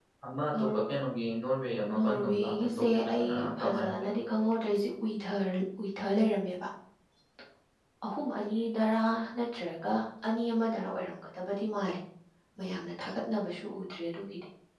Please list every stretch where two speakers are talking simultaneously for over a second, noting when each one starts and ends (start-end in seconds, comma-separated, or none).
1.9-4.4